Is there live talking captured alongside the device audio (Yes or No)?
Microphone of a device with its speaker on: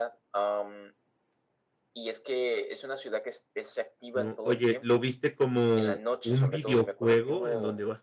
Yes